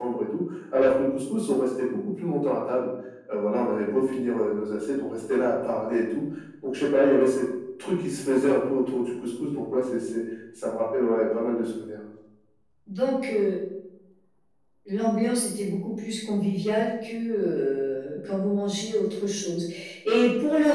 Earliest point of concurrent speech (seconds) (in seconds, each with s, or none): none